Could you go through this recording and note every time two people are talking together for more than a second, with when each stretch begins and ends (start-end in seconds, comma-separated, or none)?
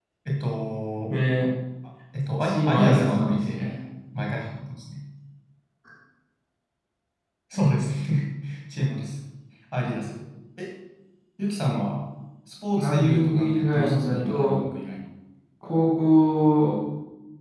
2.4-3.6, 12.8-14.6